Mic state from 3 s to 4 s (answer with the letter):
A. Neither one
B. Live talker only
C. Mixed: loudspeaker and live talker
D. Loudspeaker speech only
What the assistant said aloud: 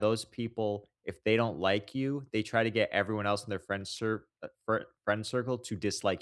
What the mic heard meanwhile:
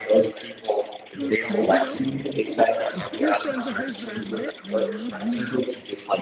C